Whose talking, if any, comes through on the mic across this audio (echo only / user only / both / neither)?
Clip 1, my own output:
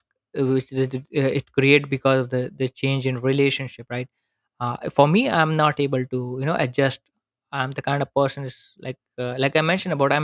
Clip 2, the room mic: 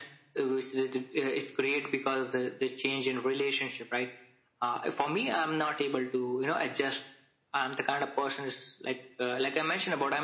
echo only